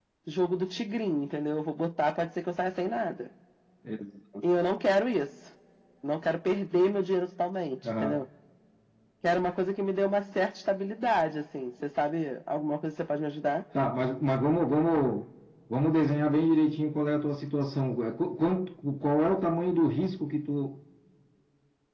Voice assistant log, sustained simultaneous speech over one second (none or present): none